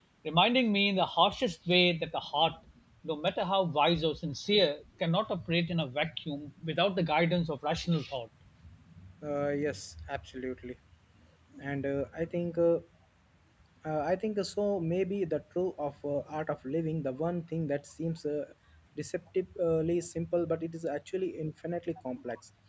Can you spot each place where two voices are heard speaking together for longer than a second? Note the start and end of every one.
none

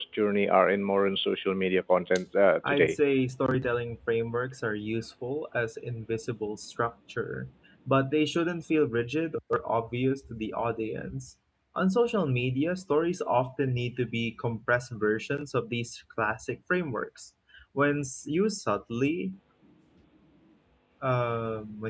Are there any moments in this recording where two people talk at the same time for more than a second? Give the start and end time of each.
none

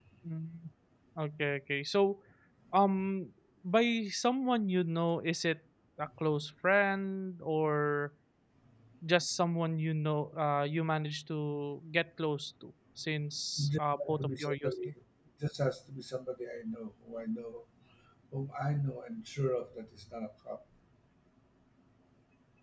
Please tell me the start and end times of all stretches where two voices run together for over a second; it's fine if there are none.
13.7-14.9

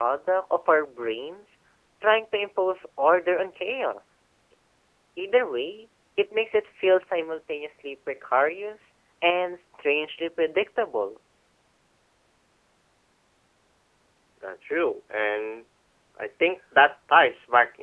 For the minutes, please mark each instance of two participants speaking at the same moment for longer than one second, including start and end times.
none

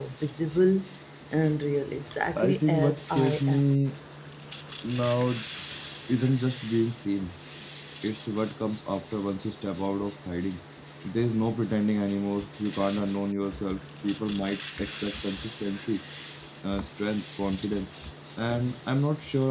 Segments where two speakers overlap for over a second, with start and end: 2.4-3.7

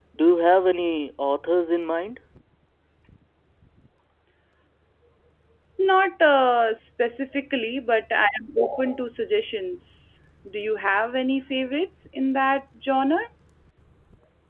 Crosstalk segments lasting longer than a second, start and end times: none

